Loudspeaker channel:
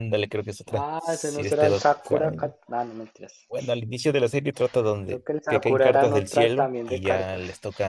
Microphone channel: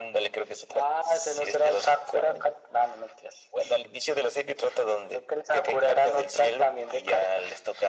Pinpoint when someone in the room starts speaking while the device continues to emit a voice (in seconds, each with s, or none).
none